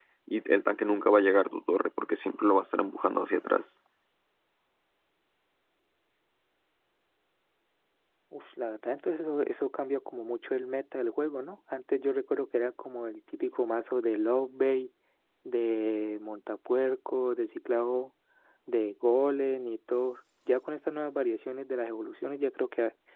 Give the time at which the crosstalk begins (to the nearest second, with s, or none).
none